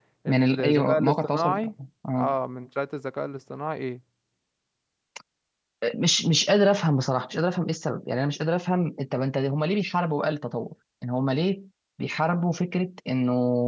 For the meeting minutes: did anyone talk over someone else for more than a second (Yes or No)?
Yes